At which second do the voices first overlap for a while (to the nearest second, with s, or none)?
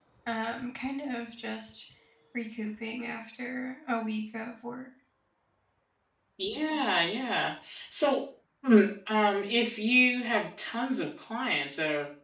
none